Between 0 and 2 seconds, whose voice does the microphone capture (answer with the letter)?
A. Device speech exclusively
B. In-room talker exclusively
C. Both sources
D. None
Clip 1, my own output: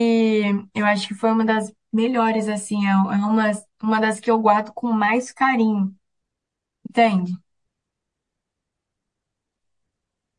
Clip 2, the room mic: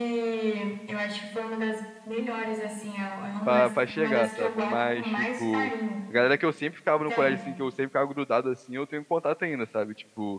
A